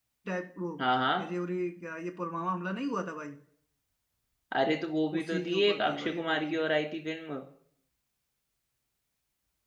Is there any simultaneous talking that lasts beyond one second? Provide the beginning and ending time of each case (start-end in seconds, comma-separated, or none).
5.2-6.5